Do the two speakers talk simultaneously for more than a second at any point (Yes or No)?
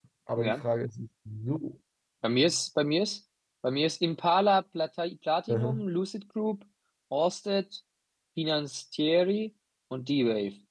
No